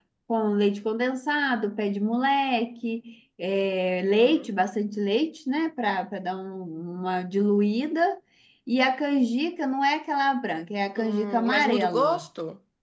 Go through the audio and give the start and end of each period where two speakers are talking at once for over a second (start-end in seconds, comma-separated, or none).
11.0-12.2